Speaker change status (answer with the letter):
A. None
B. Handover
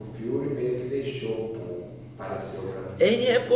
B